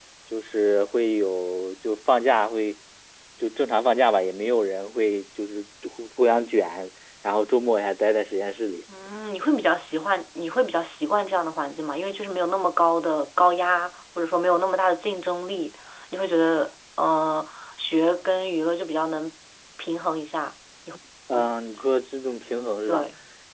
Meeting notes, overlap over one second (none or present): none